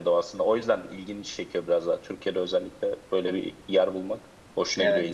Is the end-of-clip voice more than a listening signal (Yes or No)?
Yes